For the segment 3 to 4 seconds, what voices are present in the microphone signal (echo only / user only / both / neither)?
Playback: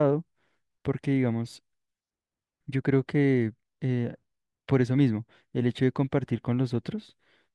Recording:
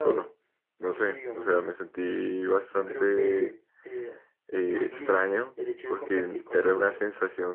both